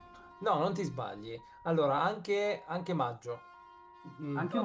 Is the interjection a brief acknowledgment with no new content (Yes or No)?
Yes